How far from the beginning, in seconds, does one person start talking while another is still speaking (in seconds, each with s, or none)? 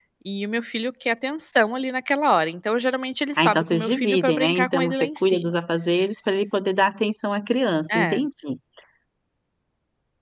3.3 s